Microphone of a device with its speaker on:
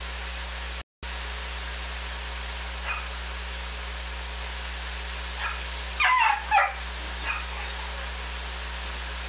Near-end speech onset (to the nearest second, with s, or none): none